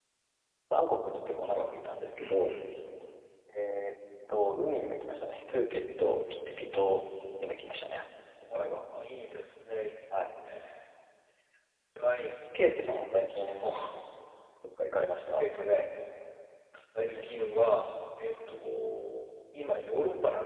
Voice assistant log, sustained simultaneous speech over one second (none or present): none